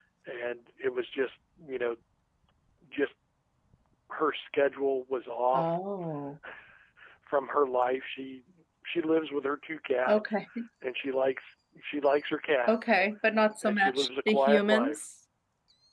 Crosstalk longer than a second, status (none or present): present